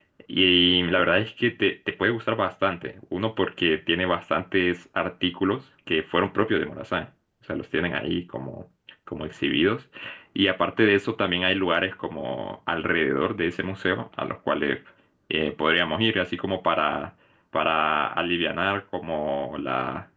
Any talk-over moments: No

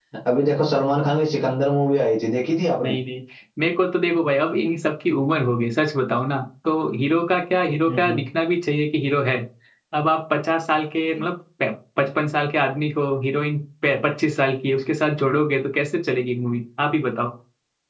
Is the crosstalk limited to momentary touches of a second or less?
Yes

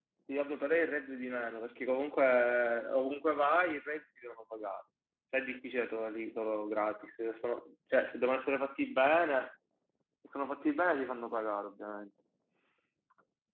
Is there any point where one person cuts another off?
No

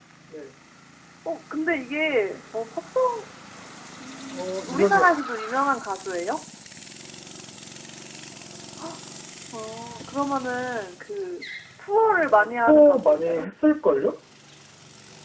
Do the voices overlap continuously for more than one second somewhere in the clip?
Yes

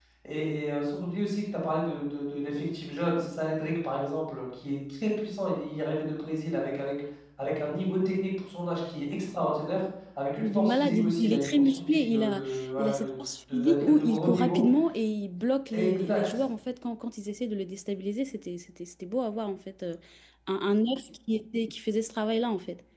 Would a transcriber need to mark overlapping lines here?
Yes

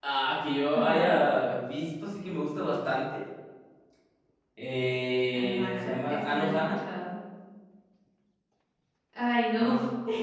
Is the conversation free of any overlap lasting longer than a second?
No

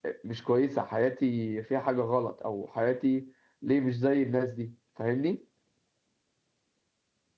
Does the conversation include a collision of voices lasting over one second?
No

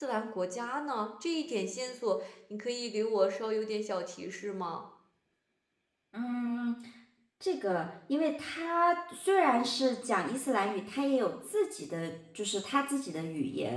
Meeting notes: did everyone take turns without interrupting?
Yes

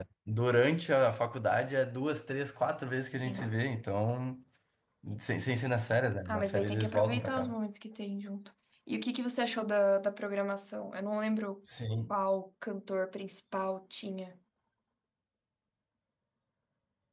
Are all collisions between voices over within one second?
No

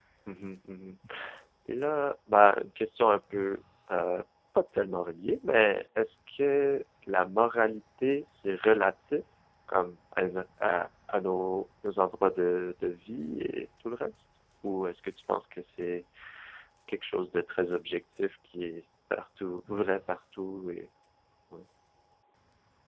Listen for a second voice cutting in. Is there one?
No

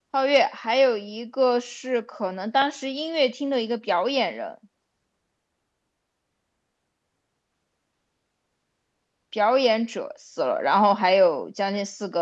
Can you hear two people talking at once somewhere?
No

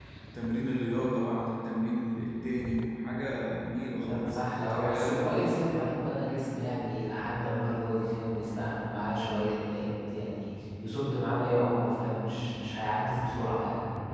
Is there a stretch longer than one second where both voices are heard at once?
Yes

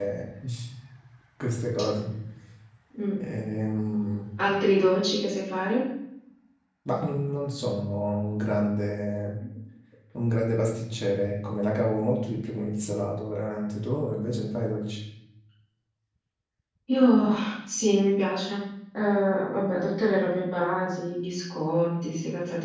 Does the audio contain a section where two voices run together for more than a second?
No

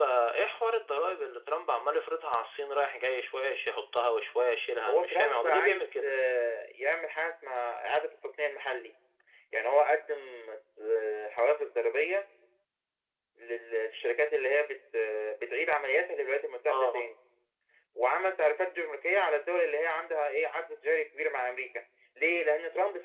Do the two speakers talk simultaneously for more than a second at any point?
Yes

